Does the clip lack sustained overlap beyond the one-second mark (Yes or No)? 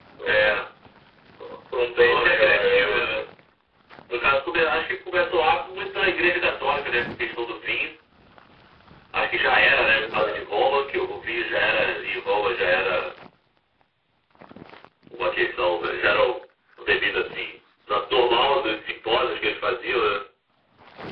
No